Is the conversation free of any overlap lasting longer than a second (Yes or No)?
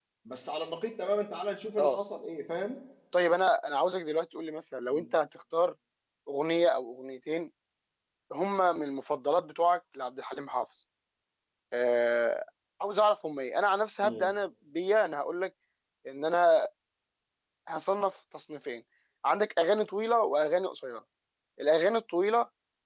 Yes